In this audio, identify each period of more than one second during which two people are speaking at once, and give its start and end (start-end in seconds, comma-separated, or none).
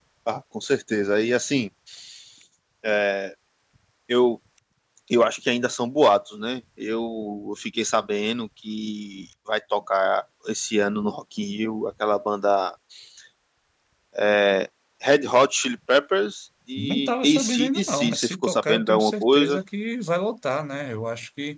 16.8-19.6